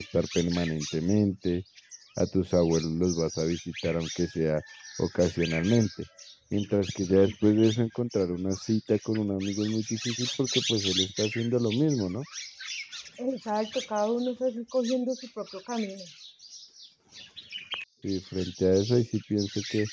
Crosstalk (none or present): none